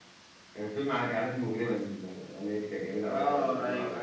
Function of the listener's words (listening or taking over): taking over